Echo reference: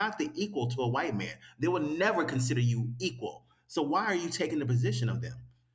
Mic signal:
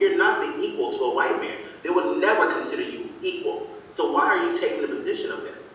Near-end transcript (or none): none